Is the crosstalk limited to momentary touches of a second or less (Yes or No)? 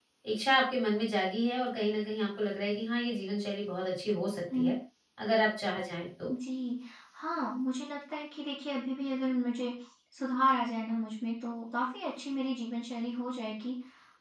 Yes